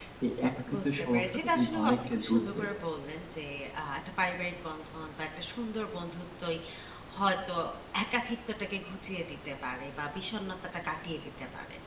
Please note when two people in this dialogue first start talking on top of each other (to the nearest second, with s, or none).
1 s